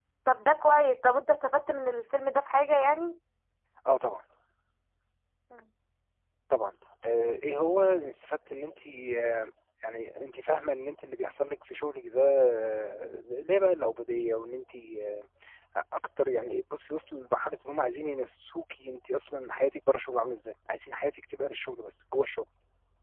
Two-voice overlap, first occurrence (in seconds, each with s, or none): none